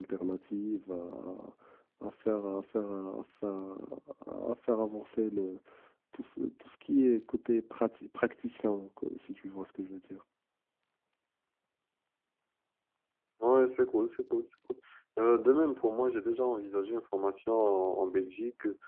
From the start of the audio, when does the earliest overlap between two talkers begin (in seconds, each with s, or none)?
none